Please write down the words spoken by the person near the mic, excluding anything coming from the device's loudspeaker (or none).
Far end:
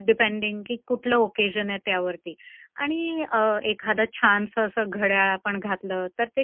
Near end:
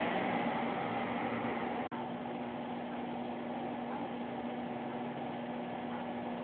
none